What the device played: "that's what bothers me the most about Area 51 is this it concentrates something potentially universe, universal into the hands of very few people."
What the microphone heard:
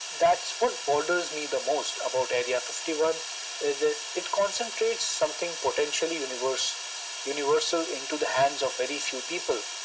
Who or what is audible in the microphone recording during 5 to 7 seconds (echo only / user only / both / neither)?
echo only